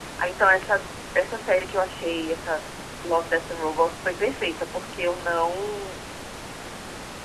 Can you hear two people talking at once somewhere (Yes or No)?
No